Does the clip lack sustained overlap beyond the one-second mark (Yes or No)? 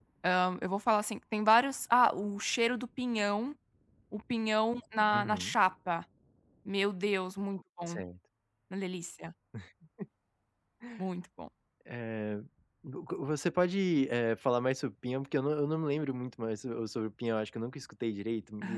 Yes